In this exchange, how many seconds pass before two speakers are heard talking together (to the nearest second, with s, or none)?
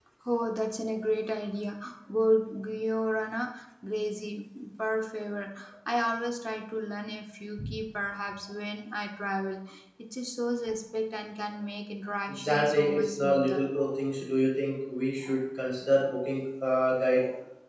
12 s